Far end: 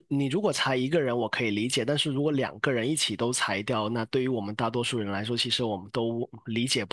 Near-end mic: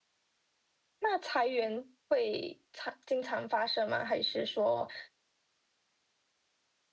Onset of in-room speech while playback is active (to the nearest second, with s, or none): 1 s